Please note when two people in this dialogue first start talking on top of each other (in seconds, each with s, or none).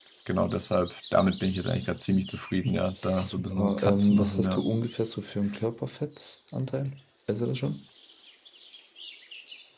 3.0 s